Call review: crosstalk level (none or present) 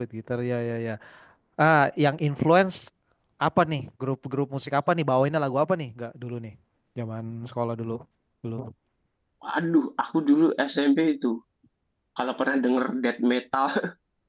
none